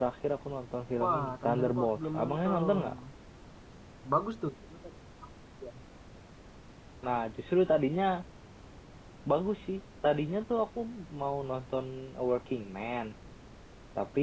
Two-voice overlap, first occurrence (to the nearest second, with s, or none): 1 s